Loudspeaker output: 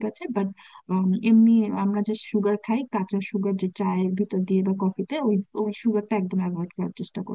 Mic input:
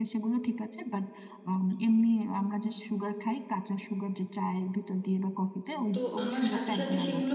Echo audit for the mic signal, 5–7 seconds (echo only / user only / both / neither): both